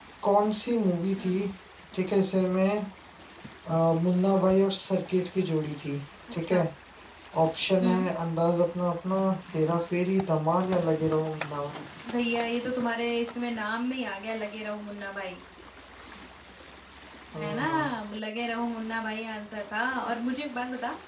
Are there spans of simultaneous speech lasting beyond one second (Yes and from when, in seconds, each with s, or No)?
No